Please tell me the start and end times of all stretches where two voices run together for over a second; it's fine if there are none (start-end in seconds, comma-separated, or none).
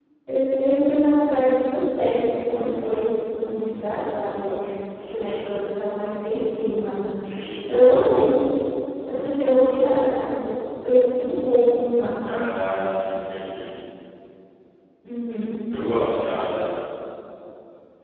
none